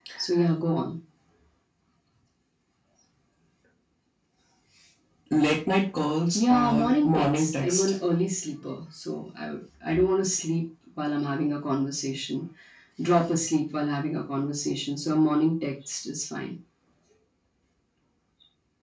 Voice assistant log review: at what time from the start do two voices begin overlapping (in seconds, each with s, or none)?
6.3 s